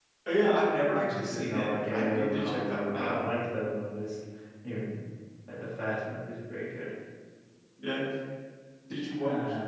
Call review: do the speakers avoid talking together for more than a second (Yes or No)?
No